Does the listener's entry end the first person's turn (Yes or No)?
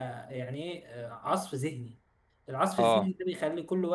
No